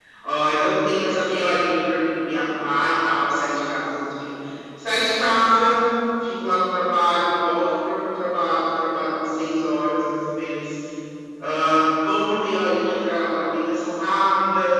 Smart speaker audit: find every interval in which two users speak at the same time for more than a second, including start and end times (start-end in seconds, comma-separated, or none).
none